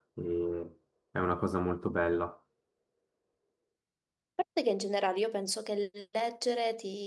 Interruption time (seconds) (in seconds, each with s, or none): none